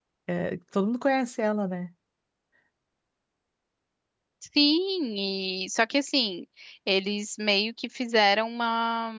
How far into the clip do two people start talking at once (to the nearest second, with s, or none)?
none